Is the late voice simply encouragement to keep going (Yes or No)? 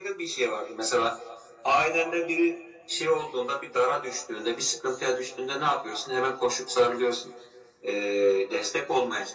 Yes